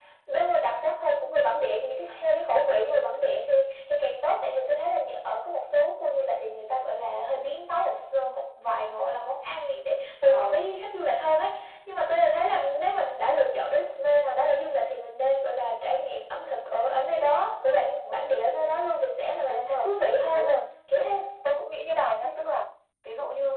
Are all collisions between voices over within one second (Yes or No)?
Yes